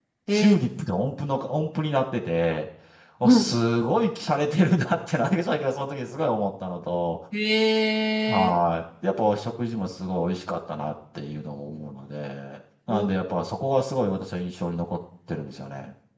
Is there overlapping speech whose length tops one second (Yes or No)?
No